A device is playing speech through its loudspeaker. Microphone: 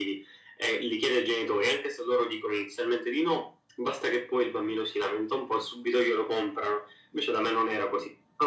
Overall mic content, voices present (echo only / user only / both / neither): echo only